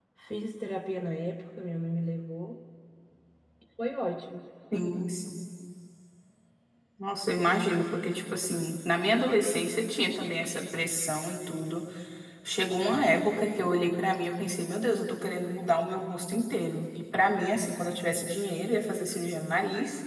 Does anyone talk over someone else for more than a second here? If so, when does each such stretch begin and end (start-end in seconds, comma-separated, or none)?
none